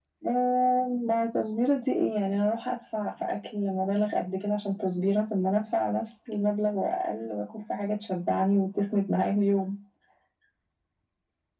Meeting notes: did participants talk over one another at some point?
No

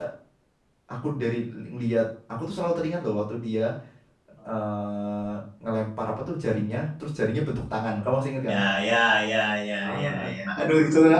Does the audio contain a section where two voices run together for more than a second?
Yes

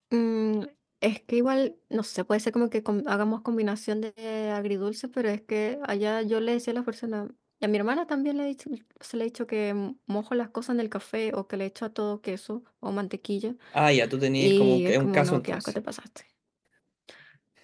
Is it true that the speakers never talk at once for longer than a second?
No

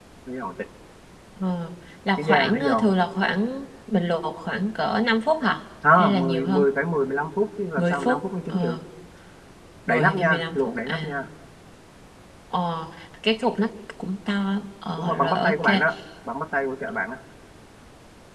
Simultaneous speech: Yes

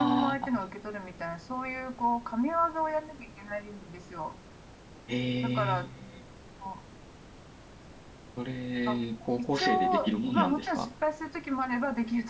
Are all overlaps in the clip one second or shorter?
No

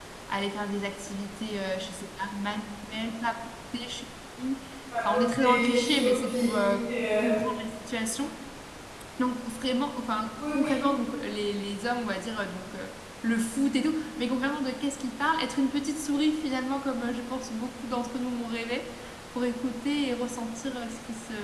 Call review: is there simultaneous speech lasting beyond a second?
Yes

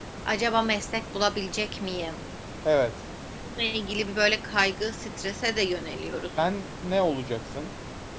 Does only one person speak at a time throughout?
Yes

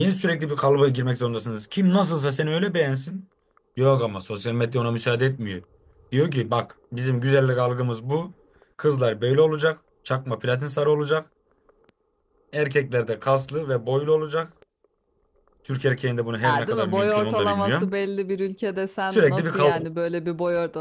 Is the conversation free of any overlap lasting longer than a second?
No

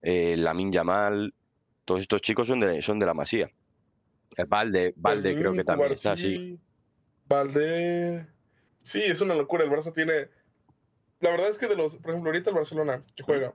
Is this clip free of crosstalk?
No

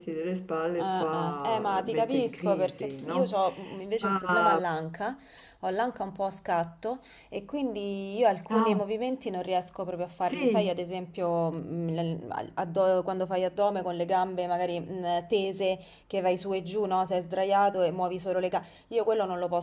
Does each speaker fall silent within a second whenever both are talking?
No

